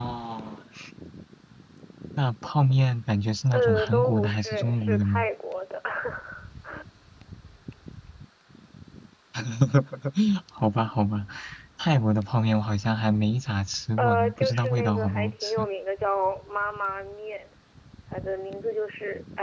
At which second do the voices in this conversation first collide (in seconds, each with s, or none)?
3.5 s